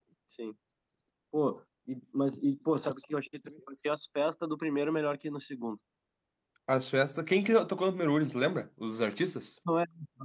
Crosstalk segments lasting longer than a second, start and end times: none

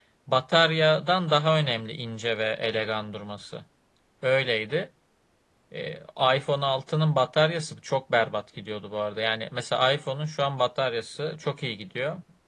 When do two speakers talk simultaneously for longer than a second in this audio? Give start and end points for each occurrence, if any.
none

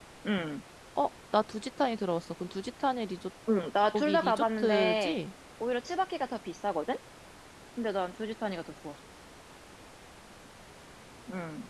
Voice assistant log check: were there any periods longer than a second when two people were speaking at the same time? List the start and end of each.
3.9-5.2

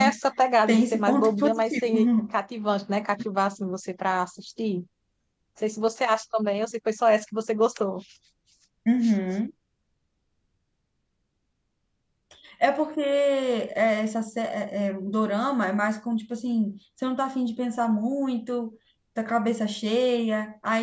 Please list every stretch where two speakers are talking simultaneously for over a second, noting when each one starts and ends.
0.7-2.1

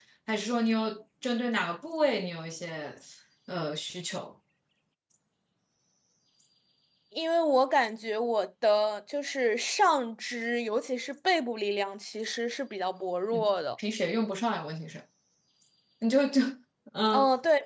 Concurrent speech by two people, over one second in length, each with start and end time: none

